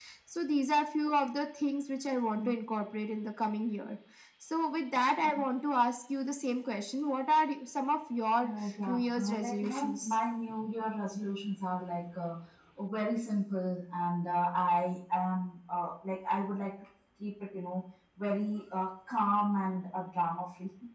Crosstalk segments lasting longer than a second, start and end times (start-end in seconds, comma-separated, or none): 8.4-10.2